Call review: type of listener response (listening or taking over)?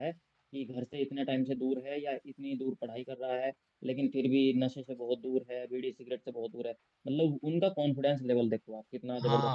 taking over